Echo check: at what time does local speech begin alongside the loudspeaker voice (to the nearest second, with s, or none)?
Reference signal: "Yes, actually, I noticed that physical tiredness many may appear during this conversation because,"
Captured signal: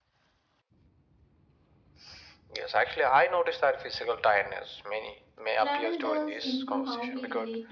6 s